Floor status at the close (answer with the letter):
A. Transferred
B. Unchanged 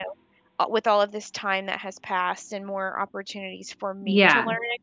B